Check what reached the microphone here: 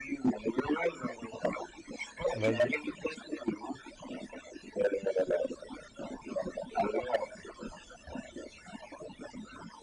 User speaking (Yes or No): Yes